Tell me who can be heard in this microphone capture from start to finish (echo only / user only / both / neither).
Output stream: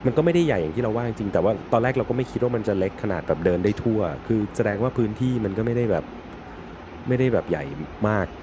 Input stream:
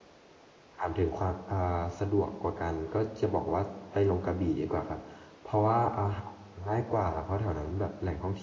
user only